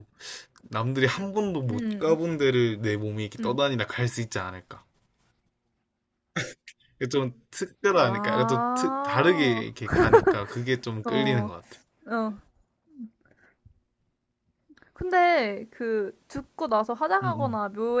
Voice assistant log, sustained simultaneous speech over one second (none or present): present